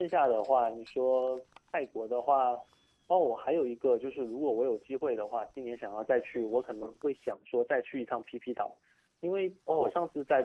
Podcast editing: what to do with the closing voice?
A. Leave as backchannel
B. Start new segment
A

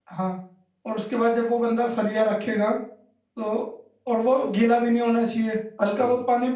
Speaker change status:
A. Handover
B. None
B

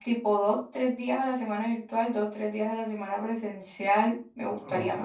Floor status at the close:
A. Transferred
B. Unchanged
A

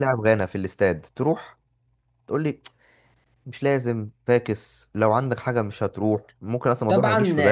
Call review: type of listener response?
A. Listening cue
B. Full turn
B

